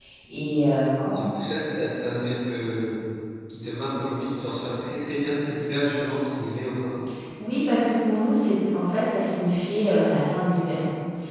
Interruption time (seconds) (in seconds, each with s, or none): none